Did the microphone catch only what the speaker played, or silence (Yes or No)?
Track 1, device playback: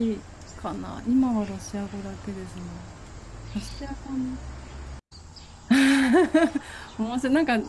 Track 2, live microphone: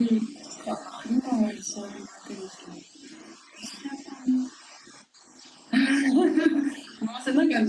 Yes